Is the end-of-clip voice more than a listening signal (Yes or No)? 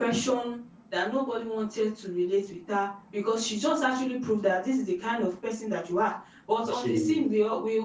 No